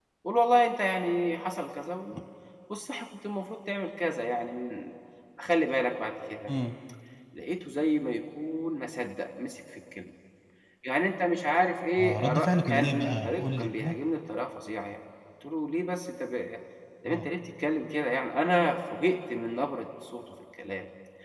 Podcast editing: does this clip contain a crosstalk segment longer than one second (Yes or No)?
Yes